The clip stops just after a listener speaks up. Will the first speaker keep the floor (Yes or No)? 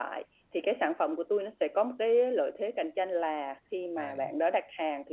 Yes